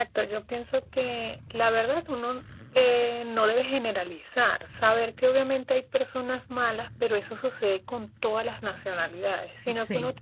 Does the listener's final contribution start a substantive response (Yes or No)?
No